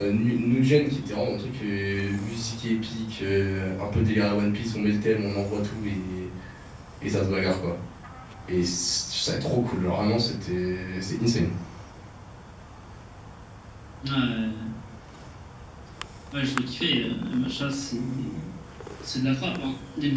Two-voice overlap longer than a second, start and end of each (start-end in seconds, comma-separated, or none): none